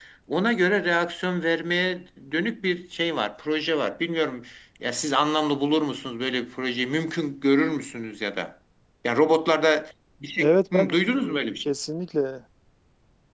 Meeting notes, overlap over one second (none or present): present